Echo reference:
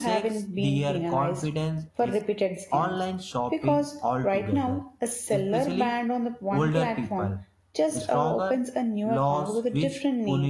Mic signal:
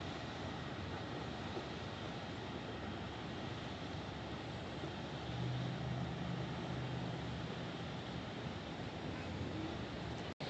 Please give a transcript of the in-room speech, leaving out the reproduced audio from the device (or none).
none